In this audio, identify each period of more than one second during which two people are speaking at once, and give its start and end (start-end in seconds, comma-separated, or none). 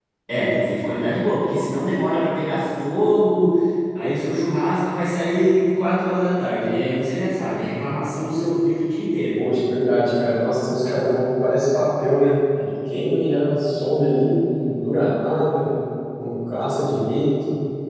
none